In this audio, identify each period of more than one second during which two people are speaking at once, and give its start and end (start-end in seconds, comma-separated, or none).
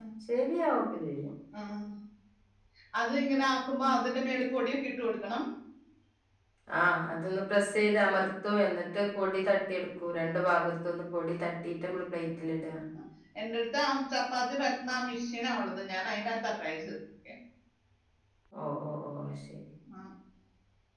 none